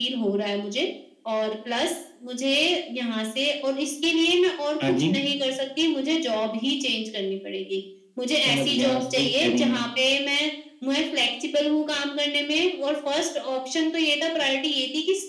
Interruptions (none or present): present